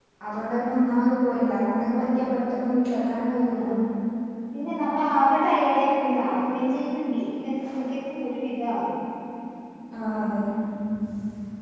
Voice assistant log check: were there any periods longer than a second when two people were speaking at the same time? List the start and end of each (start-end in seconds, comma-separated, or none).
none